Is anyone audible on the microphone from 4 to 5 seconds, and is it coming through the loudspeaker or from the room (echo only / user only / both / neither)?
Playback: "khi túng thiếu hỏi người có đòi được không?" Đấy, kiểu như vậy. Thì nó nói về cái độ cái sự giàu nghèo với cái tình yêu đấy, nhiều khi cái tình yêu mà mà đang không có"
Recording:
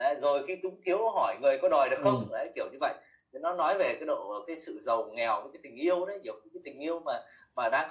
echo only